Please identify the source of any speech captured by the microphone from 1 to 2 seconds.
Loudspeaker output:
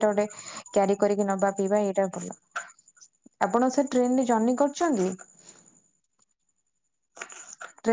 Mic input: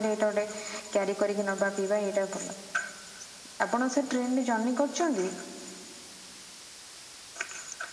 echo only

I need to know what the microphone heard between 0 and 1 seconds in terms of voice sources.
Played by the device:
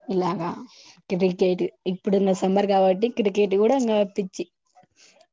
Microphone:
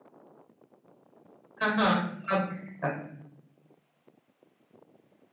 neither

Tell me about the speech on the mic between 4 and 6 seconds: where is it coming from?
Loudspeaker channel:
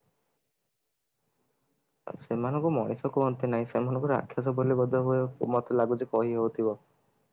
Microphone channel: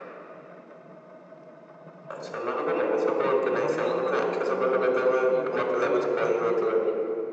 both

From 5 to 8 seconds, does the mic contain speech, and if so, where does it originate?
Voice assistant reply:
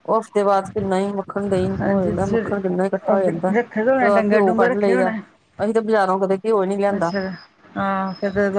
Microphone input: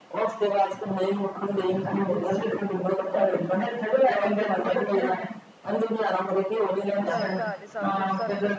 both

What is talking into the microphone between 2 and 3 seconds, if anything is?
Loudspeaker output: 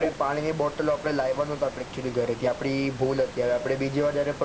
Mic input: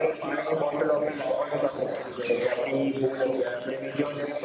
echo only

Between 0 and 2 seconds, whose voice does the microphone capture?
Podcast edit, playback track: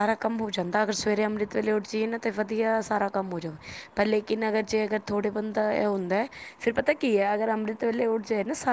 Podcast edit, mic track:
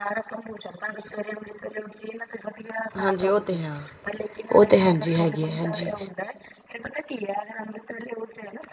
echo only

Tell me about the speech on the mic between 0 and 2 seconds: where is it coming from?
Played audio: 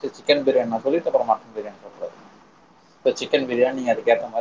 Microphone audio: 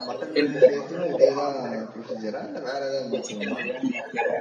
both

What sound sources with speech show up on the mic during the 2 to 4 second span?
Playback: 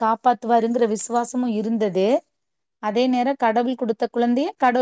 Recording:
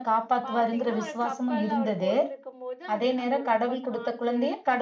both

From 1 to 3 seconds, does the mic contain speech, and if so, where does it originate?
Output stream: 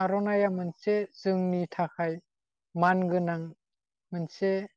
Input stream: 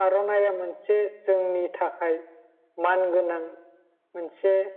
echo only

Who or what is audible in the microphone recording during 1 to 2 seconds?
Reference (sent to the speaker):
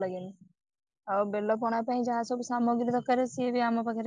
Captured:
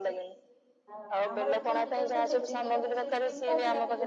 both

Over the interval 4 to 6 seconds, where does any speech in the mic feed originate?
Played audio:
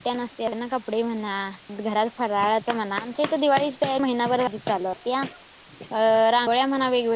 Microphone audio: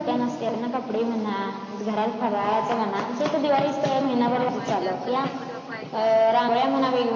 both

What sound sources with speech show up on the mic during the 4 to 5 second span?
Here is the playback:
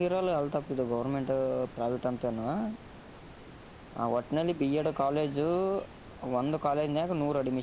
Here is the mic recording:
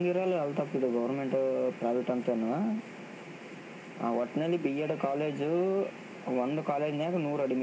echo only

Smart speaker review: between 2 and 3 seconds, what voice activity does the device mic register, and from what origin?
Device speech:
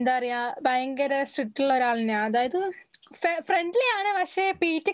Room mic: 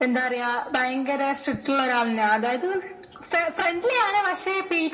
echo only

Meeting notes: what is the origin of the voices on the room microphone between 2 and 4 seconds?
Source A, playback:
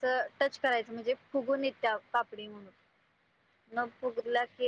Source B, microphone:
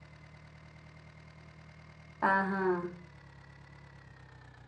user only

